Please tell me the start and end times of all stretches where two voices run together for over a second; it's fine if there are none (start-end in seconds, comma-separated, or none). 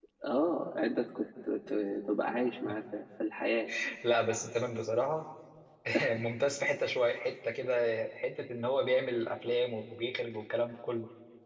none